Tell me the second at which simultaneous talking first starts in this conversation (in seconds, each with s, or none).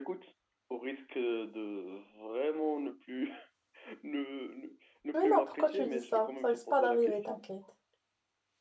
5.1 s